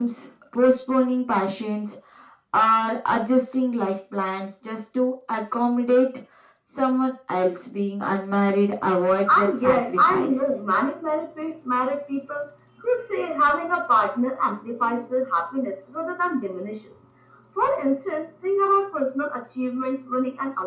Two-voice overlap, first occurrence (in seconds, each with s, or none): 9.3 s